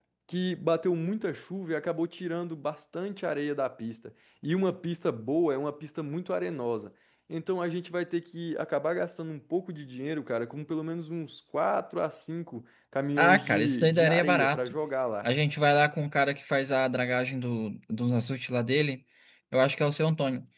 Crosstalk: present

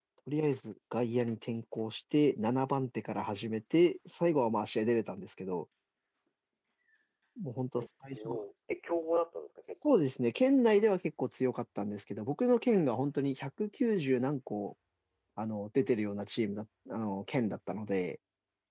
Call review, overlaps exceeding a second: none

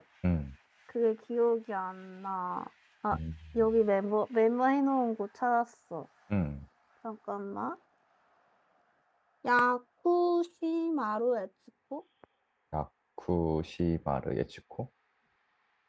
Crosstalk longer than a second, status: none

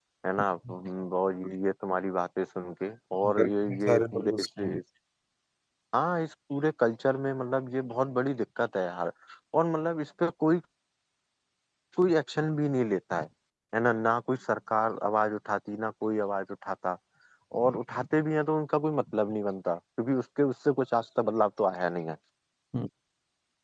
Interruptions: present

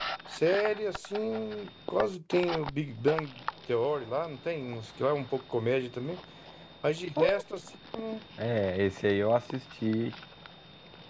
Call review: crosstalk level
none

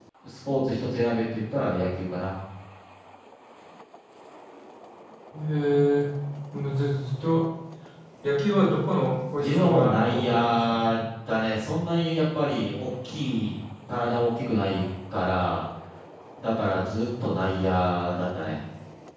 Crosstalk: present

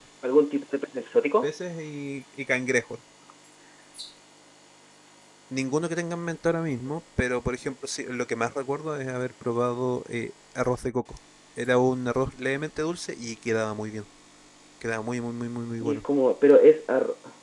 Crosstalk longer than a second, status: none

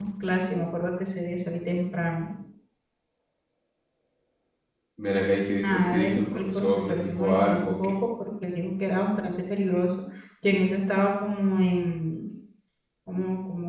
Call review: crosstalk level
present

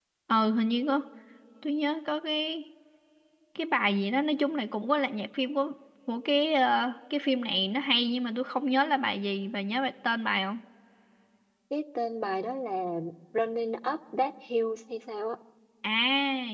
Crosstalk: none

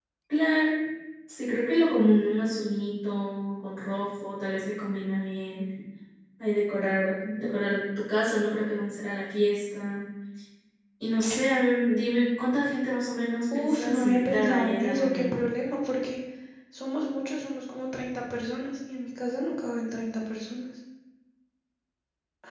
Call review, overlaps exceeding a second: present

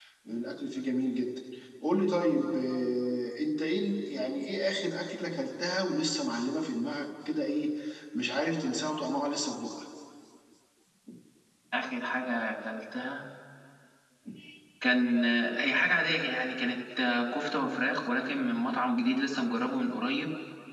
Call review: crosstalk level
none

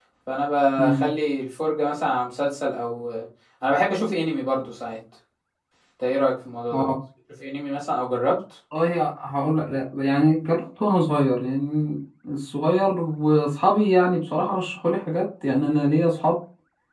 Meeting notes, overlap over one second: none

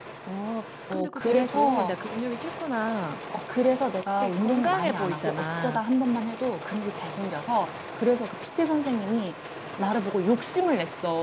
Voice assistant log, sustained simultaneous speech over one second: present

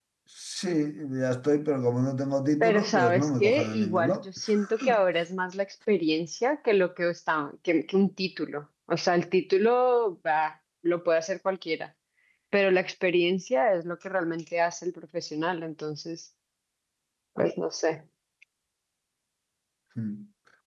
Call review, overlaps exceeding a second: present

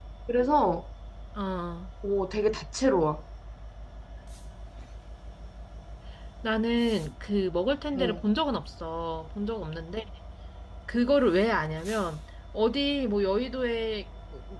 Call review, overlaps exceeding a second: none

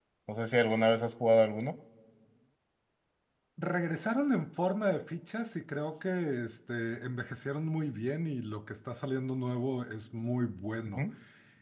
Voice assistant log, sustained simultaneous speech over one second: none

